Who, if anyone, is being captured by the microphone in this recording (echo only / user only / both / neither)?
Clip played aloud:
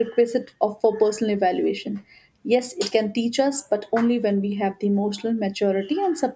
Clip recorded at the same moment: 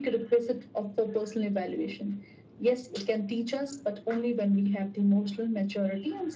echo only